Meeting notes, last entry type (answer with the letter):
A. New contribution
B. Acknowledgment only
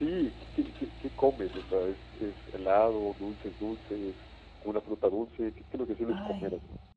A